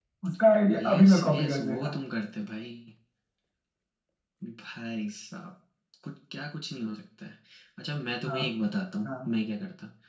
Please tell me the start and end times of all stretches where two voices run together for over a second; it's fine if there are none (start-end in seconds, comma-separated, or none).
0.7-2.0